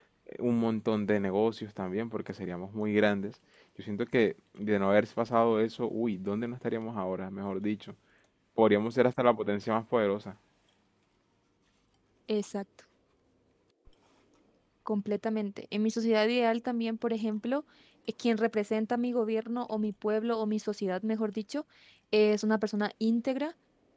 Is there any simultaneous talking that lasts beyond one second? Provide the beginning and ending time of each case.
none

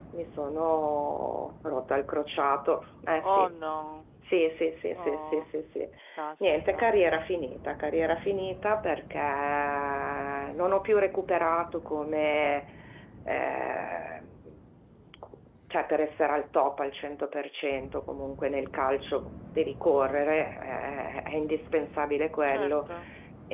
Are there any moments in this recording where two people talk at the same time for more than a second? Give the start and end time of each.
none

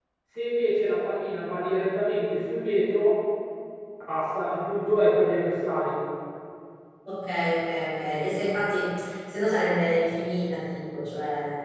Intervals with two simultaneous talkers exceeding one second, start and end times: none

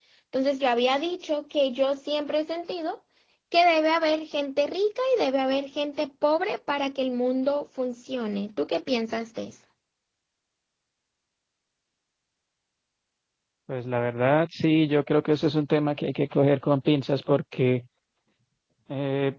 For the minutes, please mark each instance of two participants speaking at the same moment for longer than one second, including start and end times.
none

